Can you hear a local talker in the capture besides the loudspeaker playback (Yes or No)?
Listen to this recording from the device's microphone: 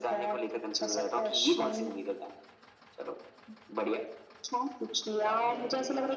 Yes